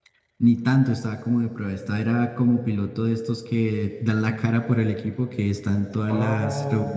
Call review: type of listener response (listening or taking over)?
taking over